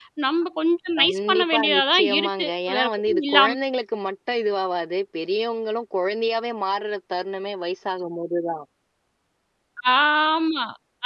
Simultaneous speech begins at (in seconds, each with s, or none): 1.0 s